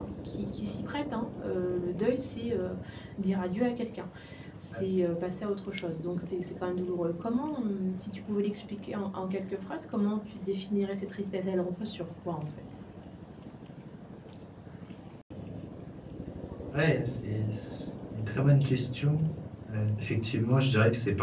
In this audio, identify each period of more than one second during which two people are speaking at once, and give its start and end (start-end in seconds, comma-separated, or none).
none